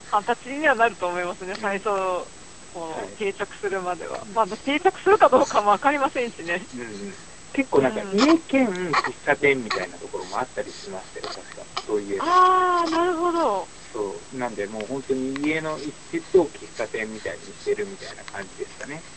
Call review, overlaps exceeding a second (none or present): none